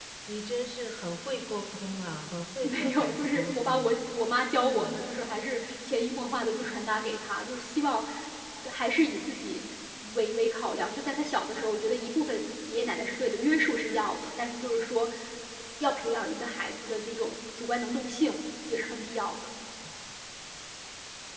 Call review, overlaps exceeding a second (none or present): present